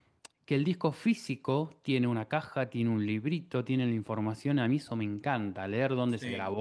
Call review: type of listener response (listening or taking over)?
listening